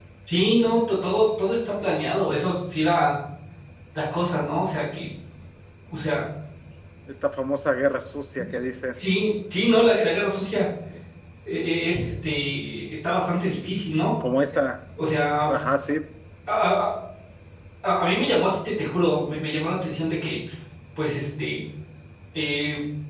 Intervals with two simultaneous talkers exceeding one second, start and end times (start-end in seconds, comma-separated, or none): none